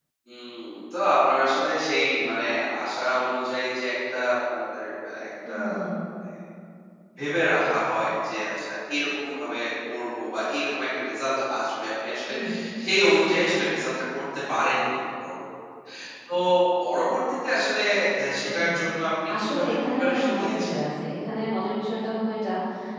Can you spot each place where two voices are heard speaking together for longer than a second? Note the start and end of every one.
19.4-20.9

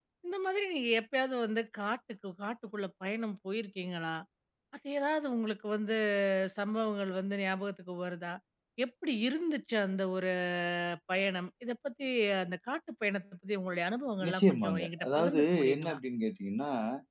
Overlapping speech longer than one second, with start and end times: 14.3-16.0

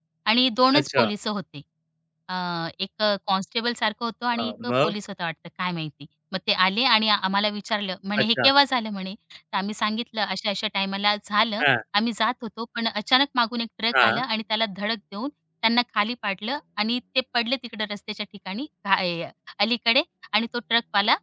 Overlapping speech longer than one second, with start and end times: none

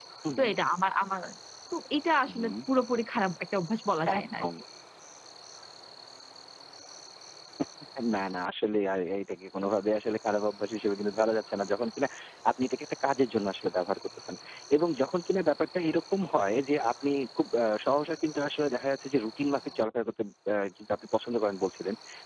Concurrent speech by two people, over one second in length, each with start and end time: none

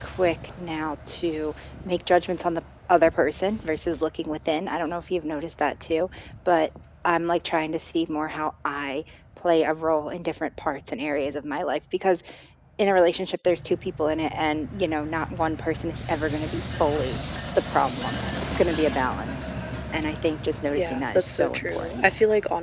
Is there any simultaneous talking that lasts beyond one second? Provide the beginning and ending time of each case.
20.8-22.0

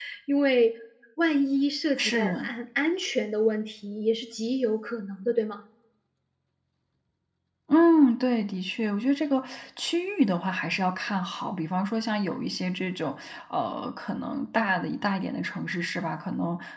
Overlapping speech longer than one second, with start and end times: none

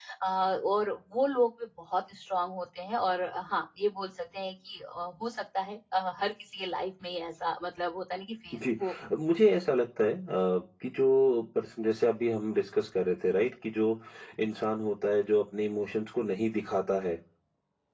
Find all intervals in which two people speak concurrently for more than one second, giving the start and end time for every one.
none

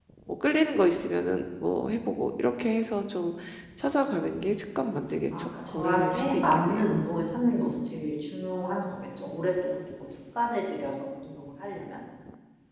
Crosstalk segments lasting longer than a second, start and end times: 5.4-6.8

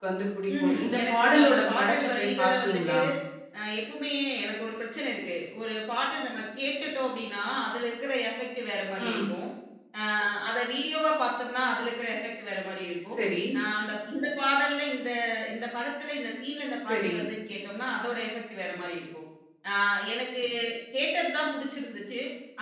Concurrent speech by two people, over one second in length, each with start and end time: 0.6-3.0

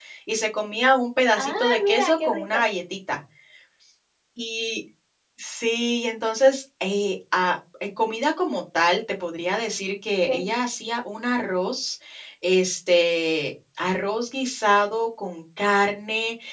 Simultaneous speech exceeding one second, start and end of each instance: 1.3-2.6

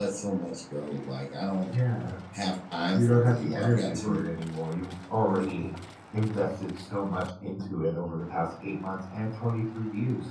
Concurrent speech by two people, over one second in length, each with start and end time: 2.9-4.2

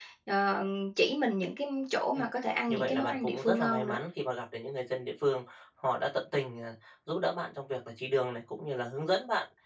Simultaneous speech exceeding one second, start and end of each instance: 2.7-4.0

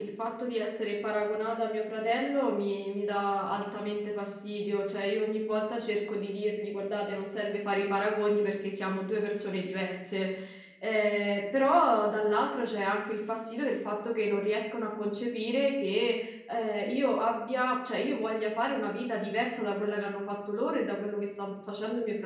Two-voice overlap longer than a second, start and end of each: none

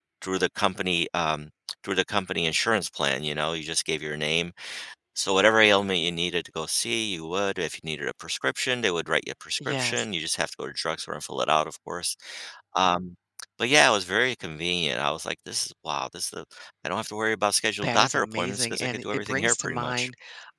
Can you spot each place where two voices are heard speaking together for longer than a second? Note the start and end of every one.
17.8-20.1

